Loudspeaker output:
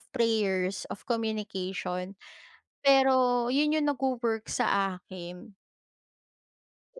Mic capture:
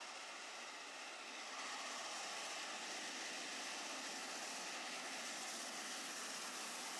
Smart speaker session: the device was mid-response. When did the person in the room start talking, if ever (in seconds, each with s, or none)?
none